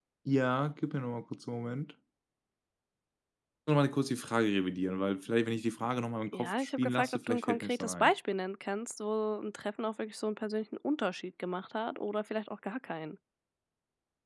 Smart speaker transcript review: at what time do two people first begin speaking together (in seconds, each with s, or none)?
6.3 s